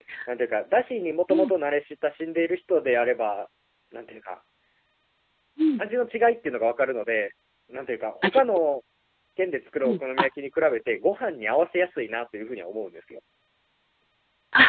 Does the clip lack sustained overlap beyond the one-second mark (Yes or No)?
Yes